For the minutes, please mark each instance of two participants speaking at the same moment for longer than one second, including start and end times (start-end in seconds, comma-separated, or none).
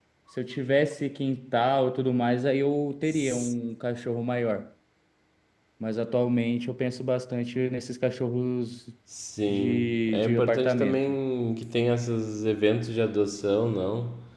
9.5-11.1